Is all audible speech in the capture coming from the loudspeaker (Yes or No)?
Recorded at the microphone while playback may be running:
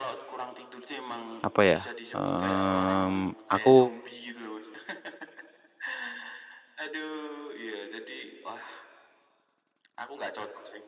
No